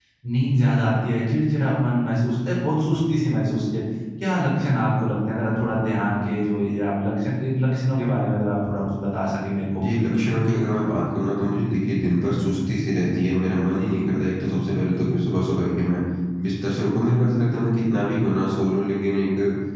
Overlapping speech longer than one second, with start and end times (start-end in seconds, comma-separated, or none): none